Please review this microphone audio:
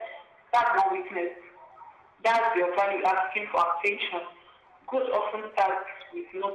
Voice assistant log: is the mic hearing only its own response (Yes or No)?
Yes